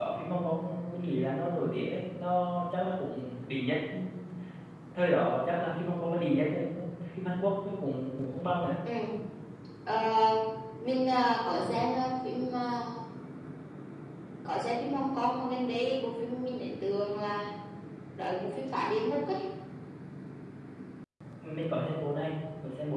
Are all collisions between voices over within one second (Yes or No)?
Yes